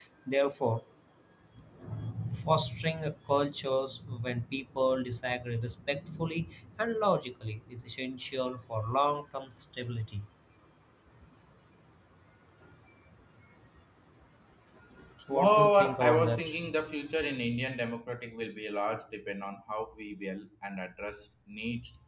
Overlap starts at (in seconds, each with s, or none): 15.3 s